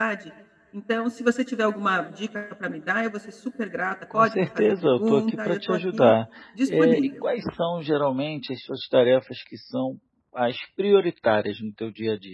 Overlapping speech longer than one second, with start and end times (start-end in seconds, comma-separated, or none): 4.1-6.1